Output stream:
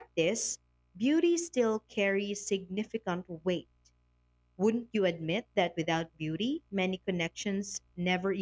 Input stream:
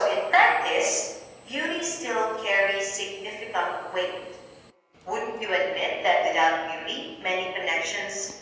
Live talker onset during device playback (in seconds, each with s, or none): none